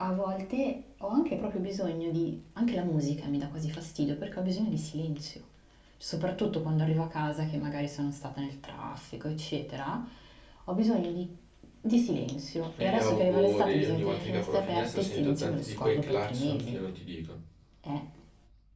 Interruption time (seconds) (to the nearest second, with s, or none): 13 s